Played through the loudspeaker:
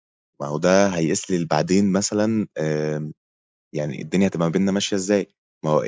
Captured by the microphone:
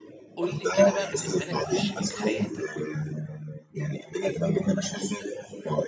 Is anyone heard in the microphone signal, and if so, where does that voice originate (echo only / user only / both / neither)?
both